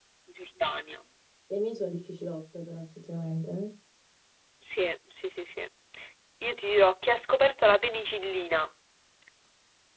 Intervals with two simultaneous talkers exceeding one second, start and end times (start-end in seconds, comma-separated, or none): none